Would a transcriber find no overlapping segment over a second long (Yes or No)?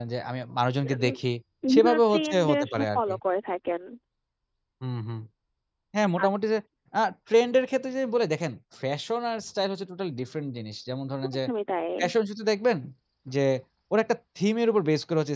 No